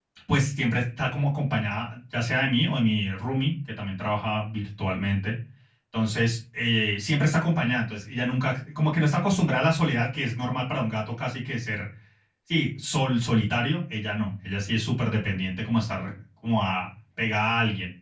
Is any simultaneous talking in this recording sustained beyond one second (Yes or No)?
No